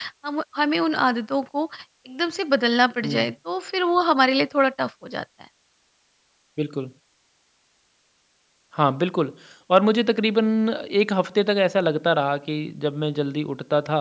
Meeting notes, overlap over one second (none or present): none